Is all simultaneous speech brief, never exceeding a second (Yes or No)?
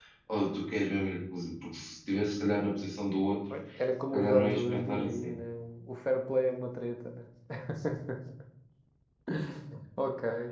No